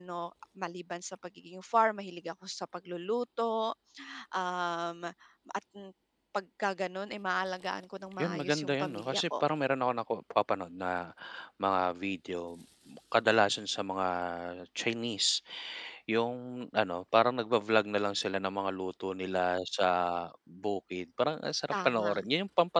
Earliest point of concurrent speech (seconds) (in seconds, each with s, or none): 8.2 s